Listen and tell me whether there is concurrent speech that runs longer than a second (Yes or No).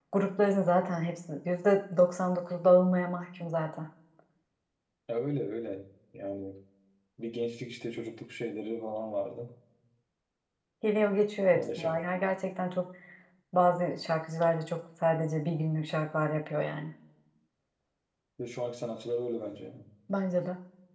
No